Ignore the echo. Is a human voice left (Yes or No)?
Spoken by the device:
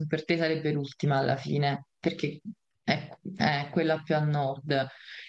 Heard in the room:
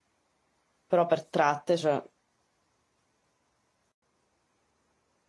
Yes